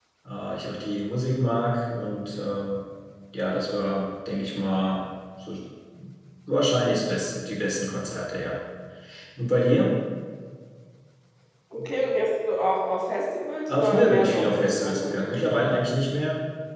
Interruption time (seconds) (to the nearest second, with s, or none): 14 s